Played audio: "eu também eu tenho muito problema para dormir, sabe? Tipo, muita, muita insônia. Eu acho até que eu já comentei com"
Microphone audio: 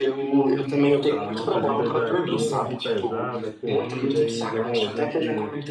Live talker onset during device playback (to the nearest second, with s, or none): 1 s